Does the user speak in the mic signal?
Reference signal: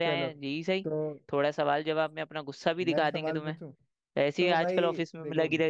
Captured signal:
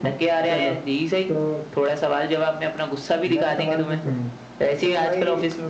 Yes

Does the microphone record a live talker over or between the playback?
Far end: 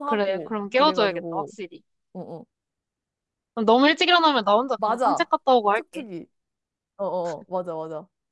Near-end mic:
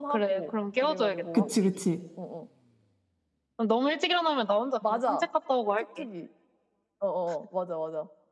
Yes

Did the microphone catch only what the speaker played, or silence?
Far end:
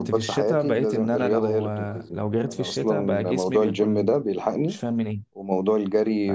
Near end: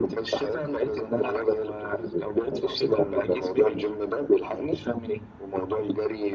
Yes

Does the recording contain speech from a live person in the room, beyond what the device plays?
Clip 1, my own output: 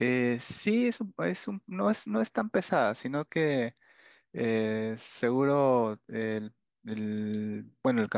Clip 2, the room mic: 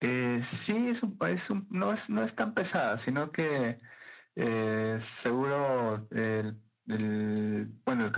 No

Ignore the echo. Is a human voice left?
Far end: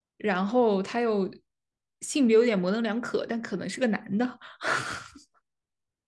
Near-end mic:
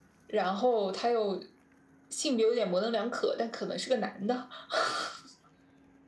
No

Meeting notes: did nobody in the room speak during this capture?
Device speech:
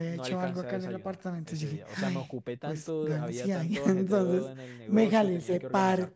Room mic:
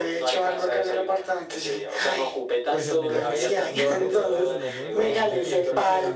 No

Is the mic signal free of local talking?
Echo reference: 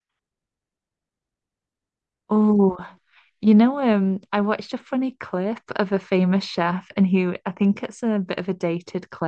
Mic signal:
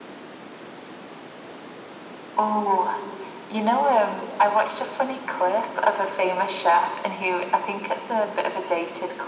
Yes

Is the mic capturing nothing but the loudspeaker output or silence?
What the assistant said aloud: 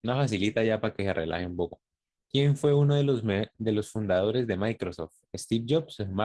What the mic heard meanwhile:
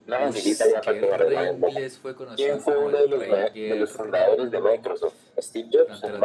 No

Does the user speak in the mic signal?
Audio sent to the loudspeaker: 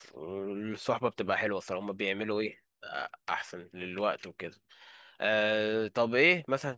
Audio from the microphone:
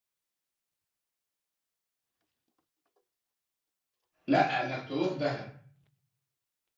Yes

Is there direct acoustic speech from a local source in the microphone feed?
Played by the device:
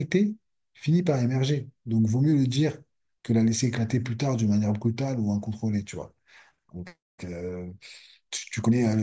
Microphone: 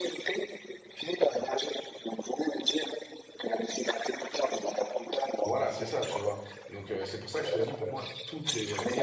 Yes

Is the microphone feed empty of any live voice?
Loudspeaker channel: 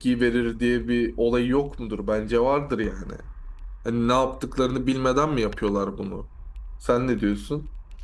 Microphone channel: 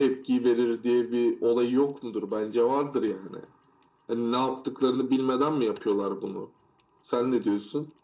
Yes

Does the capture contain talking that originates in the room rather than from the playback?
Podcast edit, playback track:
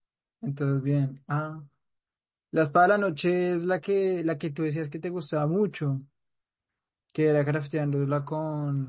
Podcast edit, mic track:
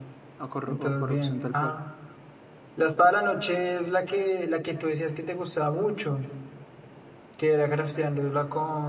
Yes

